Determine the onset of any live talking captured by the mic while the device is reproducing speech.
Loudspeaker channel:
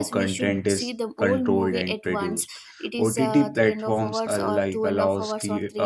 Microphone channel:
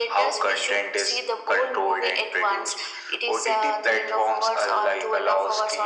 none

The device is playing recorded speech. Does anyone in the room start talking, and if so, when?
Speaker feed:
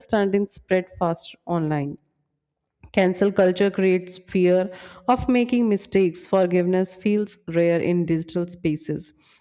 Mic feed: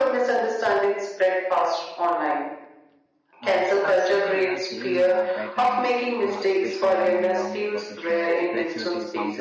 3.4 s

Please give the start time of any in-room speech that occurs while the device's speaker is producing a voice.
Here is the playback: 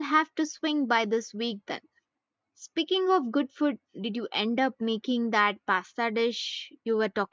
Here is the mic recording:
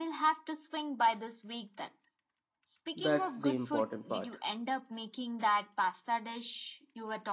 3.0 s

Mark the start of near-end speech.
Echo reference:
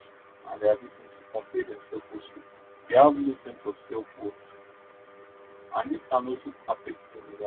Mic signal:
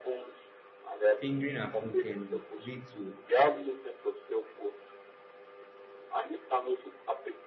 1.1 s

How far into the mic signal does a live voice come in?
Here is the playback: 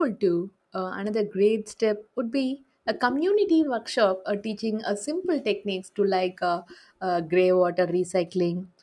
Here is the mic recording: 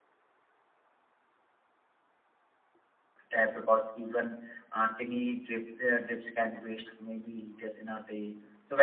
3.3 s

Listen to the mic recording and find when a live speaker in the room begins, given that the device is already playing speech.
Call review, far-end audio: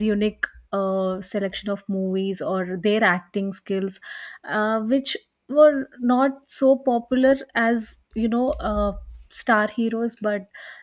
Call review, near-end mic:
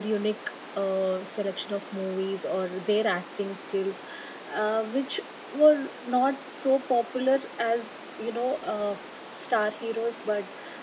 none

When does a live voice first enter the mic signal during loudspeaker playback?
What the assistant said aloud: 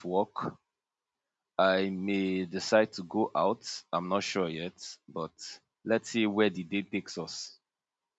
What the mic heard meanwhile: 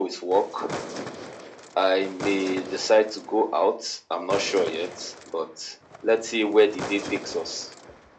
none

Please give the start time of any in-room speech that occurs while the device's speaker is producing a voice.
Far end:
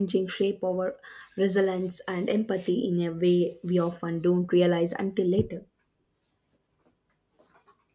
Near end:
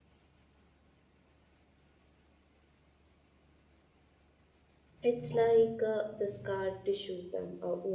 5.0 s

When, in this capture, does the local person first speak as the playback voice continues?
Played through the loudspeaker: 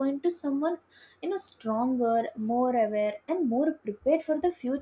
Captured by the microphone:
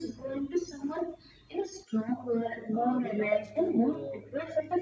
2.7 s

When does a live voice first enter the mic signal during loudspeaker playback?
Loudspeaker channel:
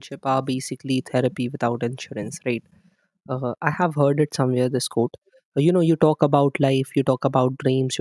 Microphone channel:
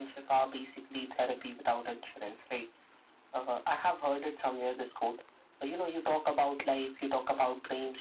none

